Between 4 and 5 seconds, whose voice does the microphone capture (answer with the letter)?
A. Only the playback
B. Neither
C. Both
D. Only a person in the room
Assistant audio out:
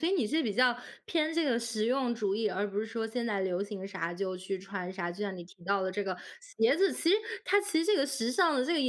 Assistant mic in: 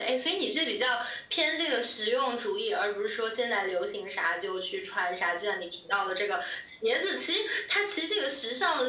A